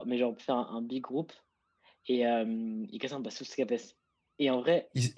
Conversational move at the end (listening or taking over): listening